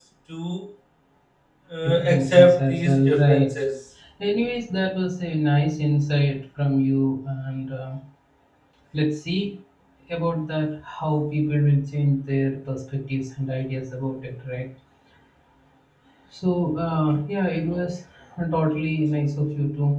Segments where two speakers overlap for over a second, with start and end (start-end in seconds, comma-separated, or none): 1.8-3.4